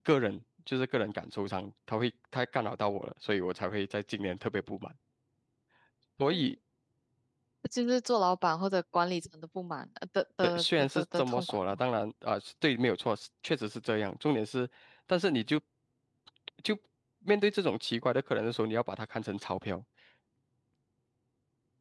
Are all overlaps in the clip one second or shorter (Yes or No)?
No